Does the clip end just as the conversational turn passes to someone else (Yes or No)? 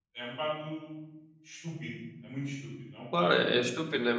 Yes